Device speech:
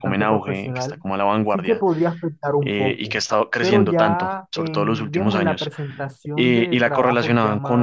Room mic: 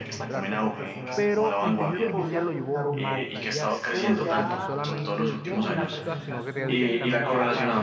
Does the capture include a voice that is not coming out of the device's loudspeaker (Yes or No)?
Yes